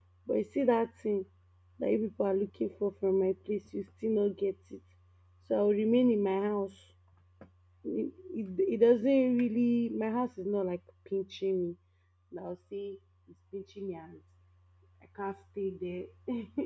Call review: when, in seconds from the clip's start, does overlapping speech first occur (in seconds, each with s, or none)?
none